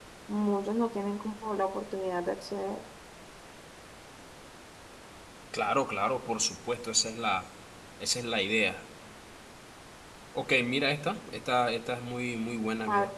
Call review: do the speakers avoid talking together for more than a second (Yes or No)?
Yes